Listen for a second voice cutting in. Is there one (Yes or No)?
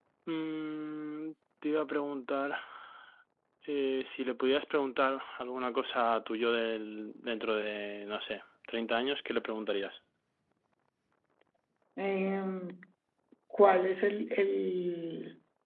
No